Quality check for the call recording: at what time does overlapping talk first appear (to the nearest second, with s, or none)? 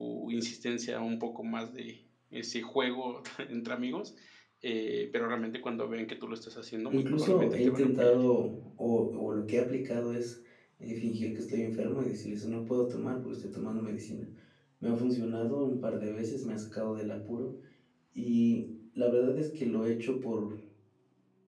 7 s